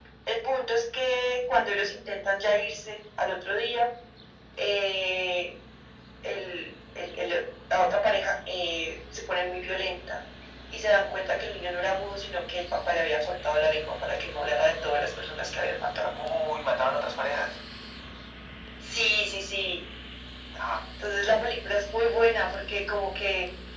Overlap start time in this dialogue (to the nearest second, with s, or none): none